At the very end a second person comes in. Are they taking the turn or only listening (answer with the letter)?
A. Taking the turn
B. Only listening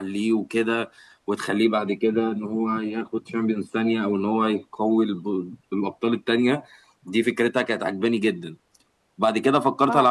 B